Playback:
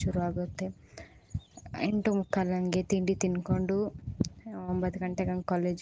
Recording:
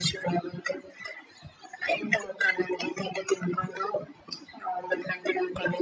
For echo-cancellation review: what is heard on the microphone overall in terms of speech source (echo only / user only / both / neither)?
echo only